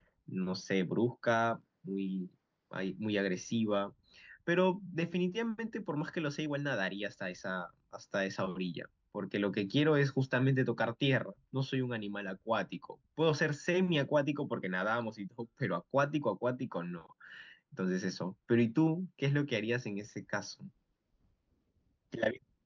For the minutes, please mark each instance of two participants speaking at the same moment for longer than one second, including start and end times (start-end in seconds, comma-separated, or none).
none